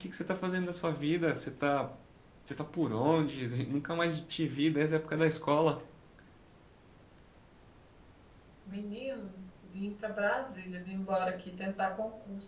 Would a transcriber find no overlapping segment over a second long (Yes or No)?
Yes